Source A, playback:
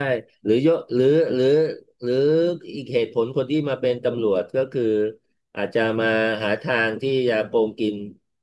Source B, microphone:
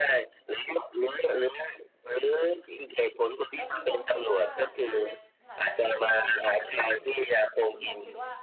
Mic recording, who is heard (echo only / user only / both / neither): both